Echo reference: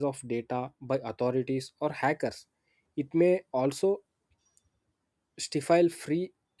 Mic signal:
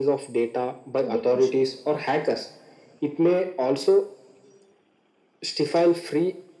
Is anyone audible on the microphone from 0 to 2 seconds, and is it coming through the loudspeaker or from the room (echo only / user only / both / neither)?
both